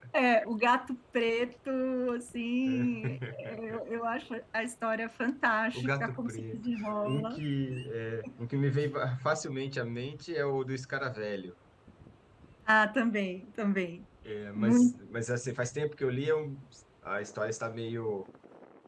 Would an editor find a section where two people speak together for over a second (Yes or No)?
Yes